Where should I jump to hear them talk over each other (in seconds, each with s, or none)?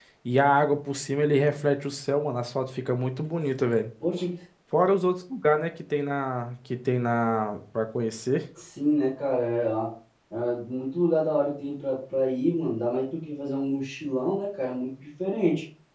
none